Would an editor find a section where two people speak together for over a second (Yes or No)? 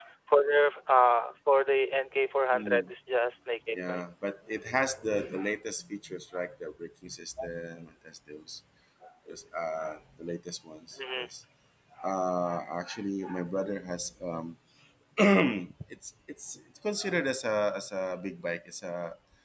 No